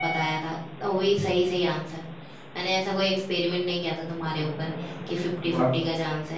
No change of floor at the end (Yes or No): Yes